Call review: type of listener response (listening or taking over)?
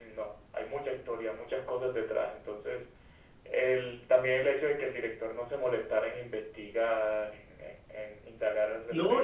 taking over